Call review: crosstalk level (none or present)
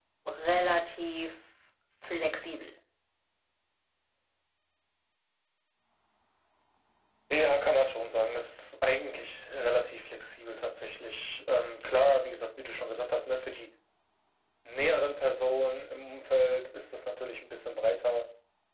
none